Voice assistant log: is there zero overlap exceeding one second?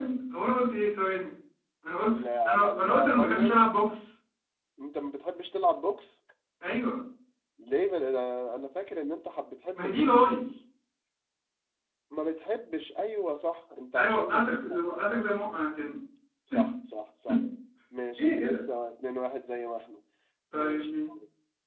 No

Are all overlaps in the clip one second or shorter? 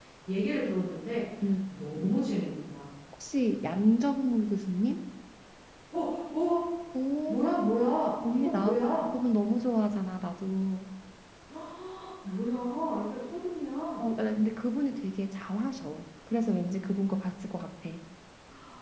Yes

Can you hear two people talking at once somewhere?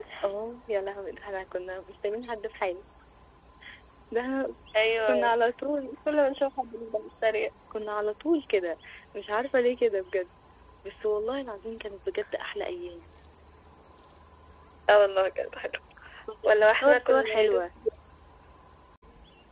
Yes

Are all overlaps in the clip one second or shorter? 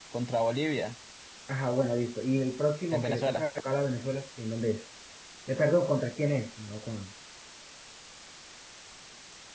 Yes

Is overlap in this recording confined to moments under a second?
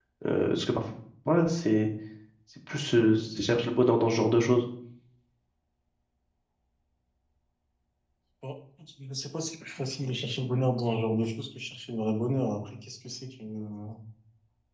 Yes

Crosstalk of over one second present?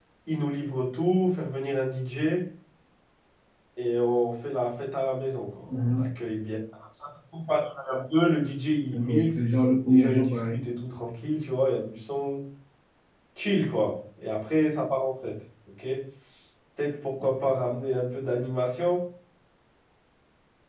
Yes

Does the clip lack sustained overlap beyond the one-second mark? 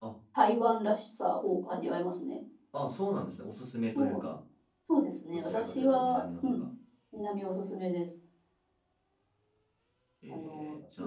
No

